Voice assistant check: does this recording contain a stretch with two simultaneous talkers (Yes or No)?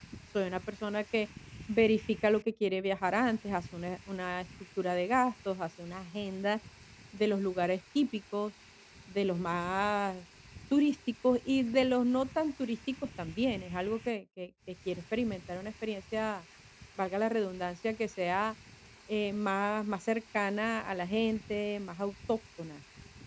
No